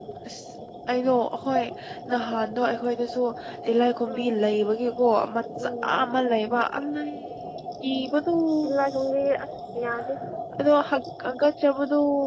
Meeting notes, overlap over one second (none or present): none